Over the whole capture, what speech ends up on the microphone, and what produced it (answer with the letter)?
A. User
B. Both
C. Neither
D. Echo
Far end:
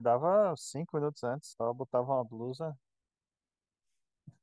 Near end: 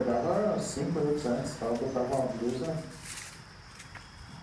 D